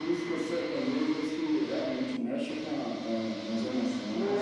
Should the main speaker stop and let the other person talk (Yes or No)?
Yes